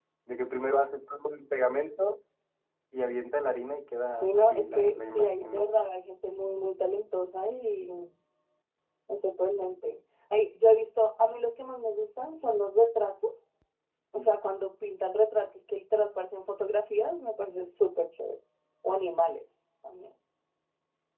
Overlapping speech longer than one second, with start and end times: 4.0-5.7

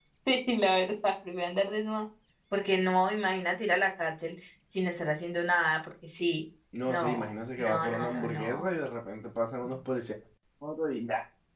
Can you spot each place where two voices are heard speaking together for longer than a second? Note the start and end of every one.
6.9-8.7

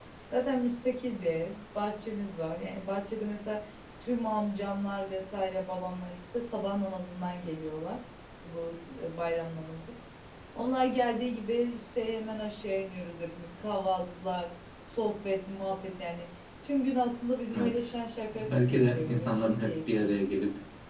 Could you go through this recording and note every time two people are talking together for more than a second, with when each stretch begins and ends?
18.3-20.1

